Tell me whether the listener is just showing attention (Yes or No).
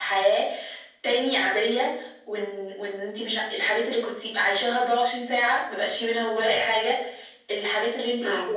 Yes